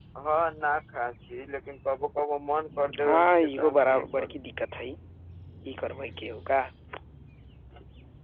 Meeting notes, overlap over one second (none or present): present